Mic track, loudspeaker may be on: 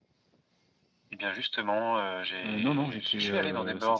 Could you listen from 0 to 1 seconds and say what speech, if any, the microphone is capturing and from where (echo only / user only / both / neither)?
neither